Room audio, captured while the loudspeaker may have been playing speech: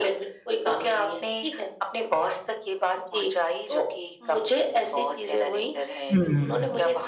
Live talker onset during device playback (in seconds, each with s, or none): 6.1 s